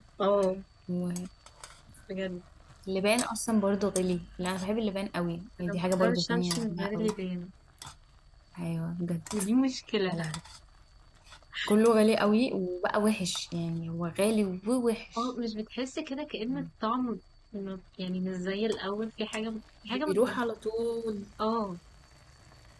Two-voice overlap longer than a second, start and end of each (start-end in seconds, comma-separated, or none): 5.6-7.1